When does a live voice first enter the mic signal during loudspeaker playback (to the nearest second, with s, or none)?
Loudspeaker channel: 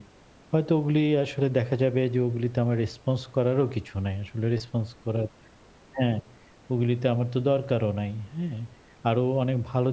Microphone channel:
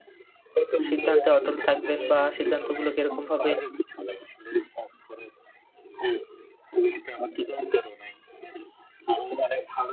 1 s